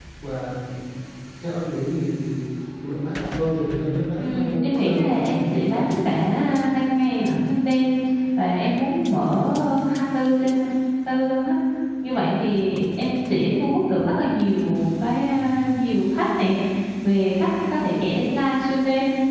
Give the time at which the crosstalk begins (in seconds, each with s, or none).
4.2 s